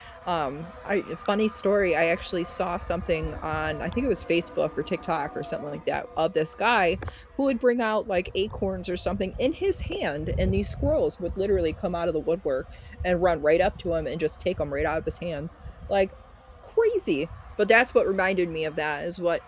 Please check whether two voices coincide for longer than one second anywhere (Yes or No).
No